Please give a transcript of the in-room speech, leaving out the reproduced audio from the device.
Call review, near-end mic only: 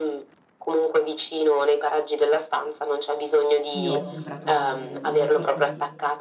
io ho comprato un una sorta di

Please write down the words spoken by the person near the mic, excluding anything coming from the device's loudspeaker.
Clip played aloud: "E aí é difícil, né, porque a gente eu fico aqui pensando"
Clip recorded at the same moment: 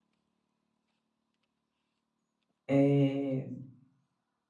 eh,

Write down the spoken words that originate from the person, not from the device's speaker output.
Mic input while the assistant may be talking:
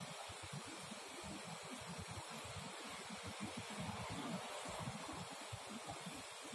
none

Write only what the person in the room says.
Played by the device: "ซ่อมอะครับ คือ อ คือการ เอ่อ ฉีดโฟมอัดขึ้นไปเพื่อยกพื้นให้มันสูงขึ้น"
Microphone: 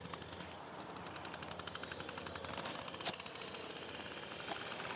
none

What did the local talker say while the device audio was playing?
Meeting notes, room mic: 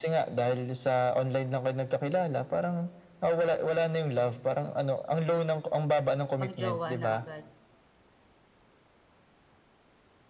mag-jowa na agad,

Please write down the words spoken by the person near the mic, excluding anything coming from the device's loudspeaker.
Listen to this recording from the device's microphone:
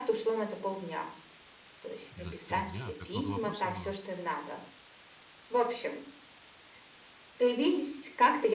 Да, 3 дня, а так много вопросов было!

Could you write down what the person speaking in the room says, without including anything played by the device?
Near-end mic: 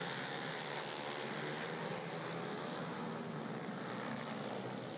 none

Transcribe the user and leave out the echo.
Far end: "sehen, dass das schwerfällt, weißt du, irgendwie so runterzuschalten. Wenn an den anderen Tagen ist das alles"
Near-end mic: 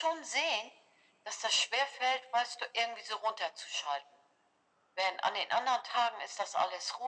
none

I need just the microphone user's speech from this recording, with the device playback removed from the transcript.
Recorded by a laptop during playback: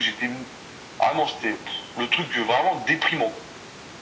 none

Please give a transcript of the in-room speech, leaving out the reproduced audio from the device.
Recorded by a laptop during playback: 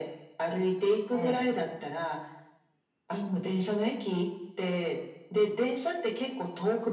ええ。

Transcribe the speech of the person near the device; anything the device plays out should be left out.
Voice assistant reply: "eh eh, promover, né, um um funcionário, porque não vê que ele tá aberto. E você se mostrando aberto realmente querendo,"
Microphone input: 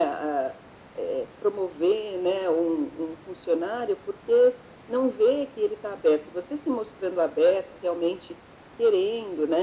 none

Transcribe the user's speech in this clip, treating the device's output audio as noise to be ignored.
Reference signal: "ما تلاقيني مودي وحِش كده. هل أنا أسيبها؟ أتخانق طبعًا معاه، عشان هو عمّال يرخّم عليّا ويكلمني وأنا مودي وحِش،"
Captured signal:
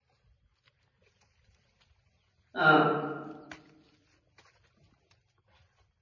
آه.

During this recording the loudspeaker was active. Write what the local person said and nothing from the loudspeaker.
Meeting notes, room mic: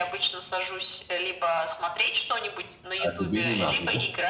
А тебе не надо, да?

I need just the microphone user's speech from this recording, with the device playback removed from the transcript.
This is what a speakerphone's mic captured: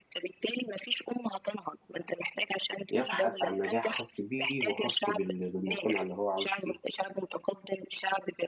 يبحث عن نجاح خاص بيه وخاص بال بالمجتمع اللي هو عايش فيه،

